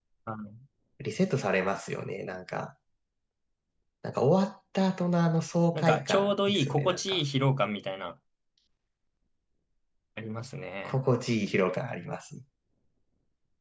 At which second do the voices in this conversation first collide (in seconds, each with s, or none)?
5.7 s